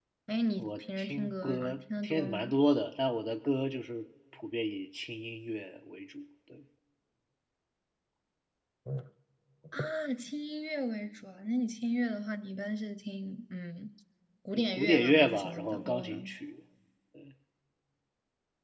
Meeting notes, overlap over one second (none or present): present